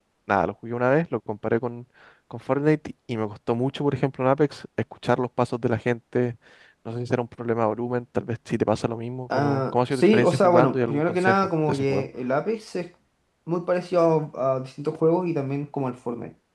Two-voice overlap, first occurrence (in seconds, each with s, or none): 9.3 s